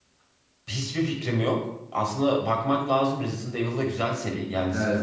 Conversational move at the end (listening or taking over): listening